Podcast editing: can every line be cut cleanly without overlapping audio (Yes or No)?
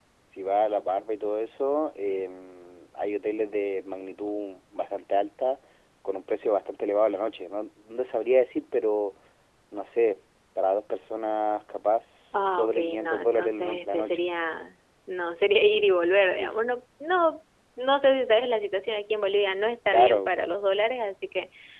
No